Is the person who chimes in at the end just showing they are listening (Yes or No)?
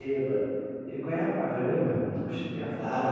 No